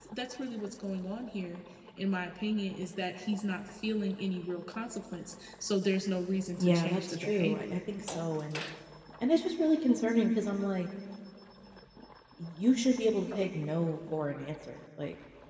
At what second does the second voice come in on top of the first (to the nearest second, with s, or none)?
7 s